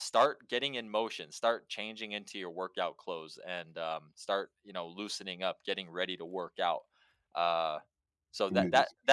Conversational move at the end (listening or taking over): listening